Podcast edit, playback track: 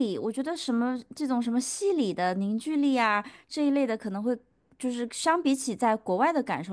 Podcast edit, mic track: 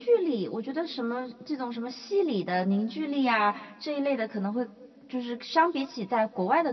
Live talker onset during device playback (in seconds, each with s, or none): none